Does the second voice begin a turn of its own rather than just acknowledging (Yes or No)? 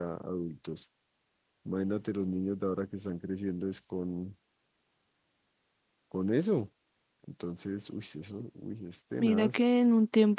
Yes